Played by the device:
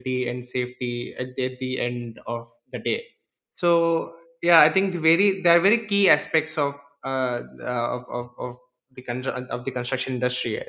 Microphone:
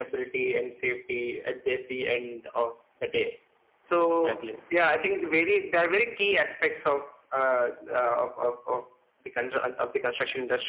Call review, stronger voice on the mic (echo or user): echo